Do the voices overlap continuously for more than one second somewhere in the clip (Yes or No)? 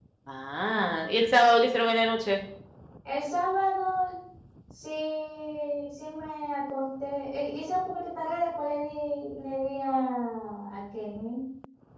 No